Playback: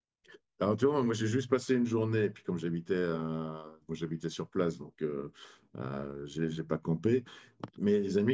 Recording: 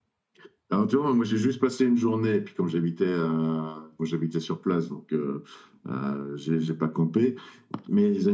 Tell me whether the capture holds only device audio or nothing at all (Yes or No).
Yes